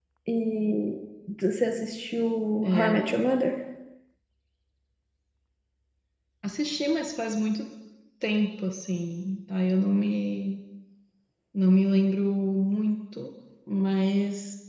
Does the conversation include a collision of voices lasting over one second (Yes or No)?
No